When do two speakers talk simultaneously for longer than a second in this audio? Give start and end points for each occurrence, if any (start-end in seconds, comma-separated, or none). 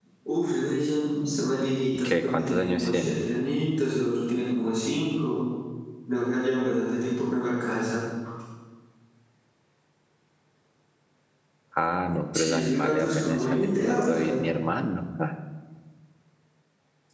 1.9-3.3, 12.3-14.3